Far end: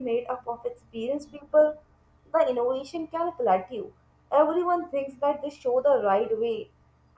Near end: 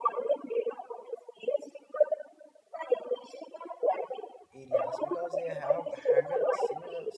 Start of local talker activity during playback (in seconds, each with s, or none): 4.5 s